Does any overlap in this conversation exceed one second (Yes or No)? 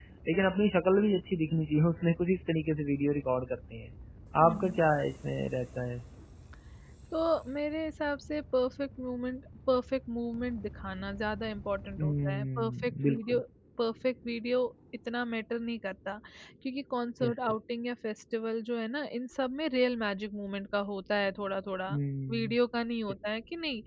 Yes